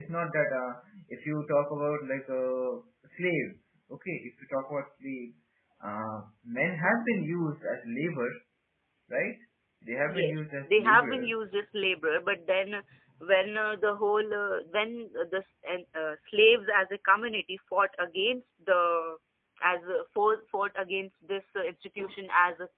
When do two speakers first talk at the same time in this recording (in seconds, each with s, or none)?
10.1 s